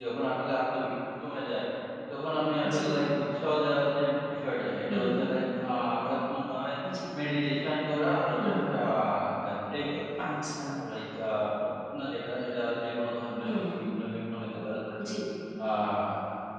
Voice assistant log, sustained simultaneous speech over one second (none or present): none